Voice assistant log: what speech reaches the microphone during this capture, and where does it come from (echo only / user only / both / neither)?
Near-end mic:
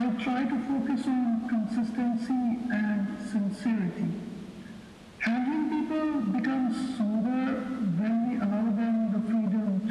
echo only